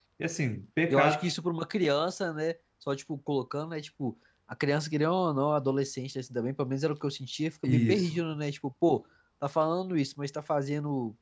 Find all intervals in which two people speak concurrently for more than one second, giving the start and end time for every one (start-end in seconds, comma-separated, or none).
none